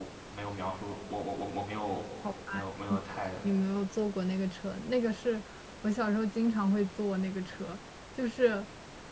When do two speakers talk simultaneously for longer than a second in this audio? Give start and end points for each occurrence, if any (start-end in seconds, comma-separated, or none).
none